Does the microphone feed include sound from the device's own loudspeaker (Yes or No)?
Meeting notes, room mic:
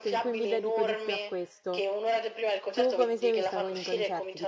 Yes